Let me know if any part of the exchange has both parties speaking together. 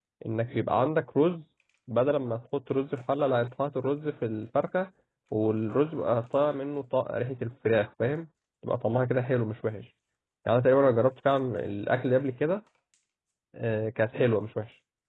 No

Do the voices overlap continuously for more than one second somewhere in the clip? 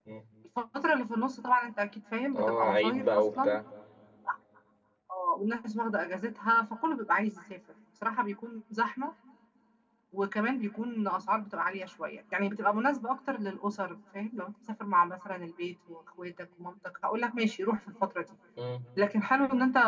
Yes, from 2.3 s

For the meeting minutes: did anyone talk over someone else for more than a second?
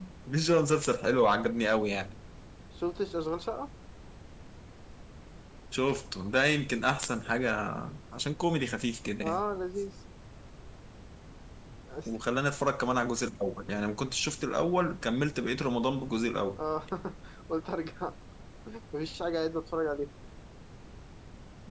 No

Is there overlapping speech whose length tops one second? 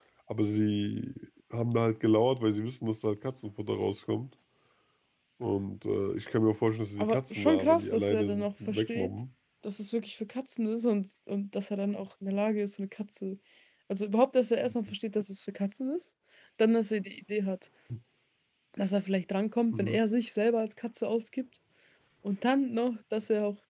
Yes, from 7.0 s

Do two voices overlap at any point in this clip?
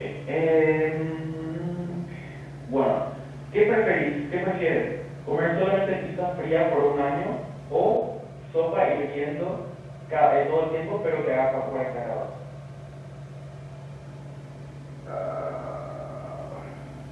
No

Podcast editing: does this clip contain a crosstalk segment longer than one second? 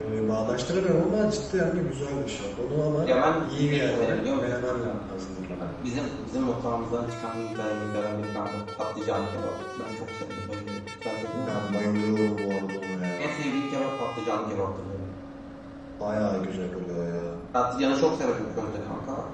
Yes, from 3.4 s

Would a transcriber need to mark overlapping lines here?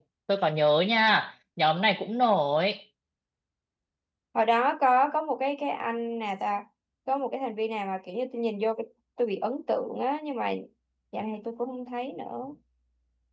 No

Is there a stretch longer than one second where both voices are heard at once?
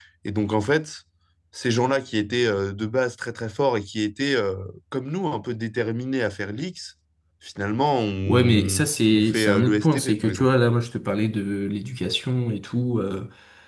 Yes, from 8.3 s

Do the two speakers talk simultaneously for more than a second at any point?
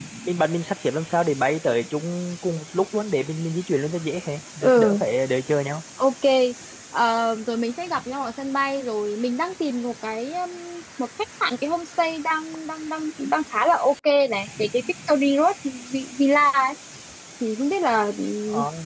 No

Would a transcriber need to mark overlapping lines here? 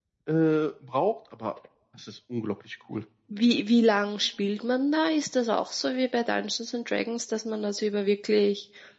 No

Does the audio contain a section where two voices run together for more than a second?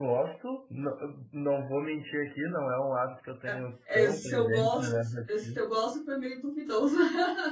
Yes, from 3.9 s

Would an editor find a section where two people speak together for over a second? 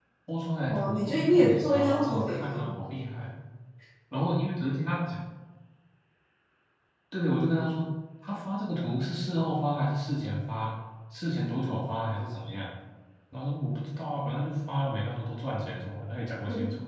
Yes, from 0.7 s

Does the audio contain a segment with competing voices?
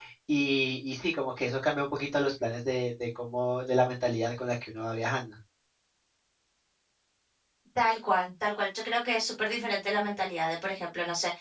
No

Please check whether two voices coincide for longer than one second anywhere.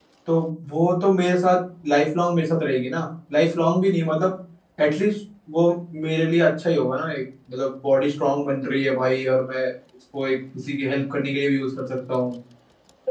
No

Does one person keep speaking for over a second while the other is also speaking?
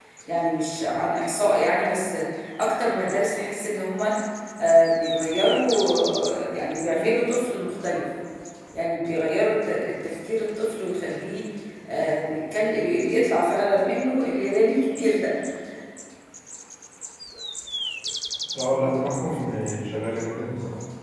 No

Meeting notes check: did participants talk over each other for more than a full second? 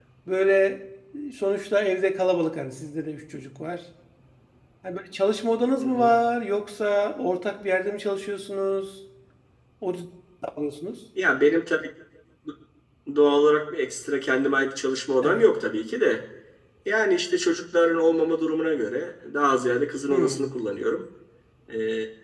No

